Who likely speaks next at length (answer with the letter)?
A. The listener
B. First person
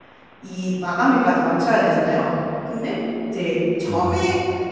B